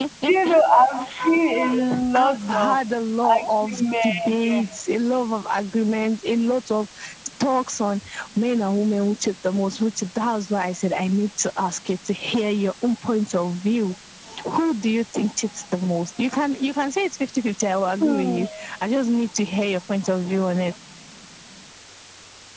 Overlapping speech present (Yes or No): Yes